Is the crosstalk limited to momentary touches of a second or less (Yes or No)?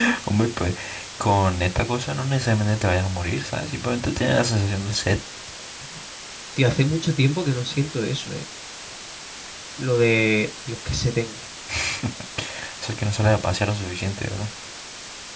Yes